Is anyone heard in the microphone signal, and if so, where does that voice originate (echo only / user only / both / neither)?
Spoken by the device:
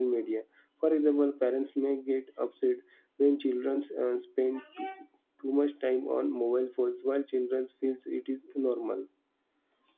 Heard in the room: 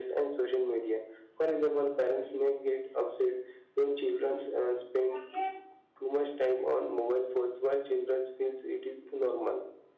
echo only